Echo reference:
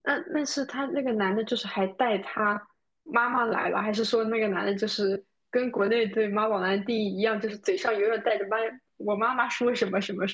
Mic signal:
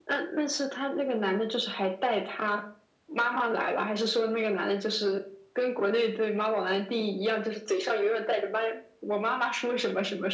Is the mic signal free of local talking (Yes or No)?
Yes